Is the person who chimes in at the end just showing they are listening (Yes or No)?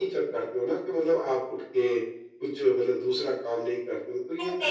No